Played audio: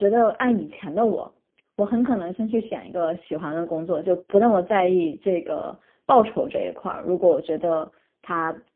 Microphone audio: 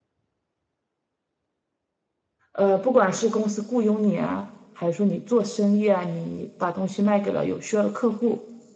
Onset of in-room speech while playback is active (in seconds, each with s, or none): 2.5 s